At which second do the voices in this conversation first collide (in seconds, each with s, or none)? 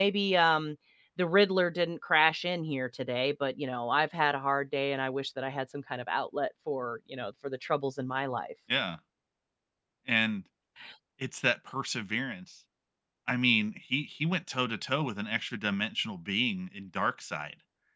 none